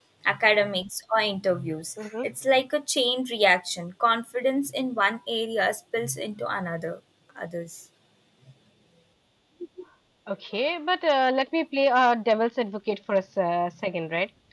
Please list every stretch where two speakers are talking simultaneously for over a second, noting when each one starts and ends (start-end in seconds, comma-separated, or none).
none